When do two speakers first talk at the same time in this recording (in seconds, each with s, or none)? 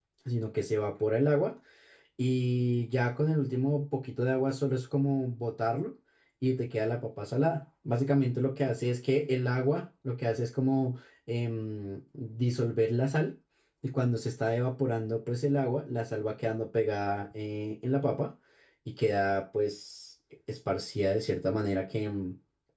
none